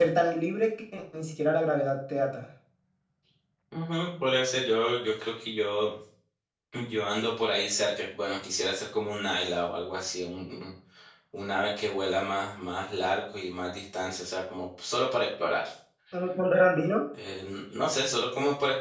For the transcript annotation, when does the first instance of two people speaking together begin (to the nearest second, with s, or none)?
none